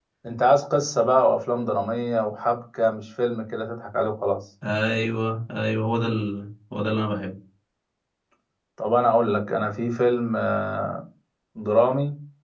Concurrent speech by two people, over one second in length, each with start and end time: none

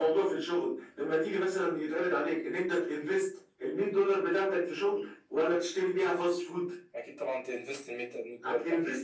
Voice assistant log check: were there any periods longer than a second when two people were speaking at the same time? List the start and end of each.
none

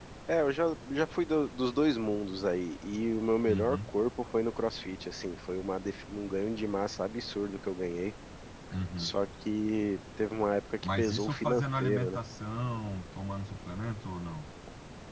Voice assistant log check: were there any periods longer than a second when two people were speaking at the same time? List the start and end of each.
10.8-12.2

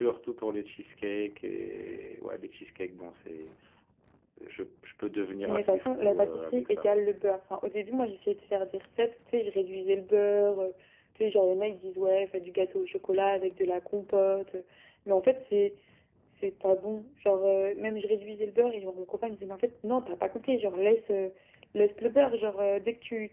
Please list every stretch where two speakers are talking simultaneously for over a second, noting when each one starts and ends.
5.4-7.0

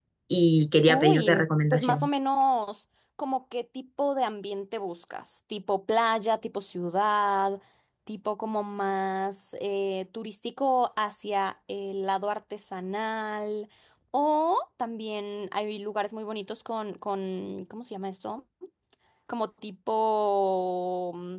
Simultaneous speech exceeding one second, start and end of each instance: 0.9-2.1

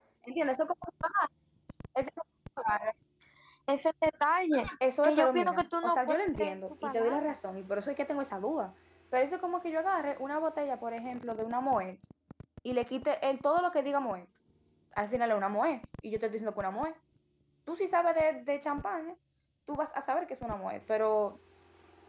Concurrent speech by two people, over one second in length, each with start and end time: 5.0-7.3

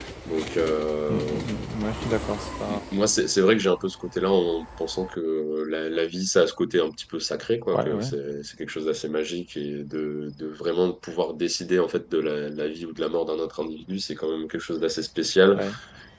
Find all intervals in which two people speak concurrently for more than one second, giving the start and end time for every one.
none

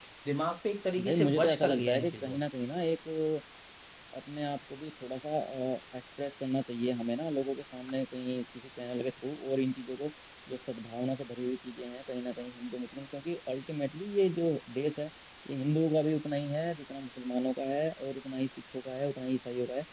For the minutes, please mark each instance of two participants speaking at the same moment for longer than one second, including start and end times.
1.0-2.4

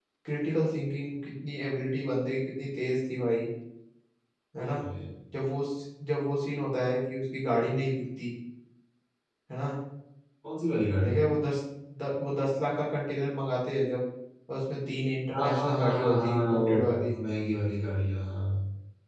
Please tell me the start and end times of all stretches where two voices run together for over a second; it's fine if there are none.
15.3-17.1

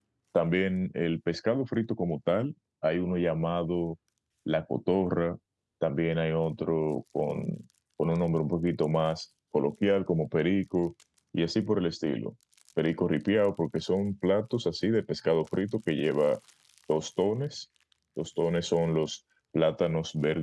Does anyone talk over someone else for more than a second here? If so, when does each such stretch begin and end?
none

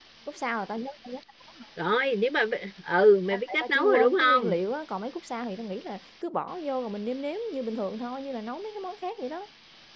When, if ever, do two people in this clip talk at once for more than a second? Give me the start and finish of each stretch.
3.3-4.5

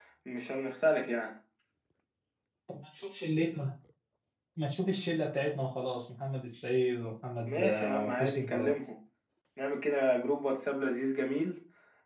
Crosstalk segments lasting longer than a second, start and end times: 7.5-8.7

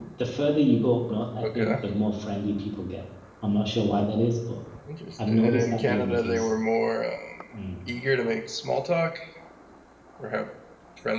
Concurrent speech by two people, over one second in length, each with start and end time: 5.2-6.5

